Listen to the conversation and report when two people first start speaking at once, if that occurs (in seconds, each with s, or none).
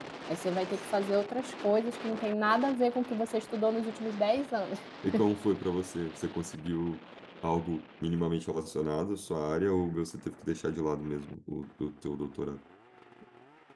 none